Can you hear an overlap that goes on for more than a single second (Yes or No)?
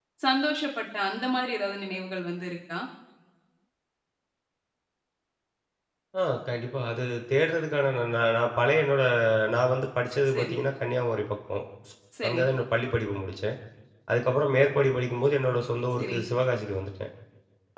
No